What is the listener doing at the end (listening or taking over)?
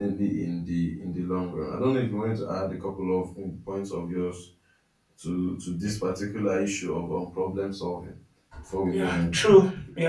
taking over